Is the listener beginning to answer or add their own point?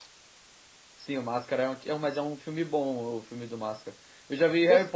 No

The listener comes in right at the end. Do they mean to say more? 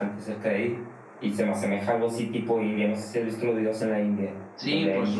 Yes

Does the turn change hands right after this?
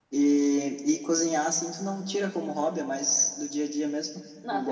Yes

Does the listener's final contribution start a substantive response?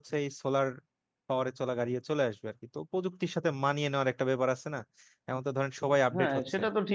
Yes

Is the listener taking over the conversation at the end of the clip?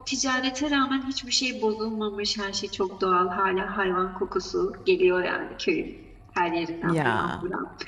No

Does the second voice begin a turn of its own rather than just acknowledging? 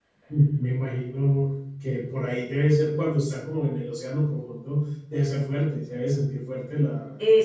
Yes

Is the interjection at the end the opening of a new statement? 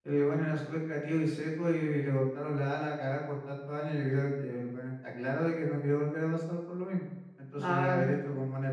No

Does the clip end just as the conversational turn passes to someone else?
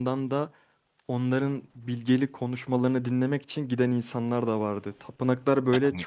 No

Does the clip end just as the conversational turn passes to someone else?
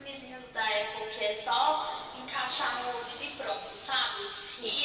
No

